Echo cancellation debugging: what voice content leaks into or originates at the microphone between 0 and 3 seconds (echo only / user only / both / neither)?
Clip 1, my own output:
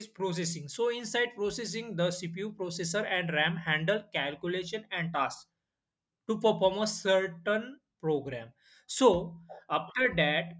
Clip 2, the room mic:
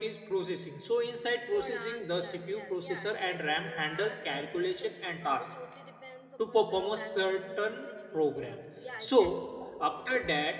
both